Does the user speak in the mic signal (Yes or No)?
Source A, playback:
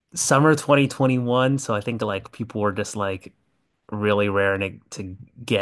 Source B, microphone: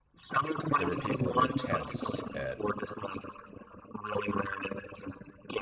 Yes